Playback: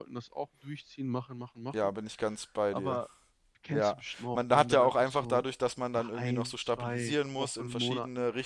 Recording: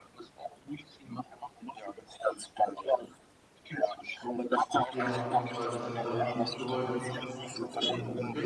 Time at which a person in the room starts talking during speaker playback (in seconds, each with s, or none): 4.9 s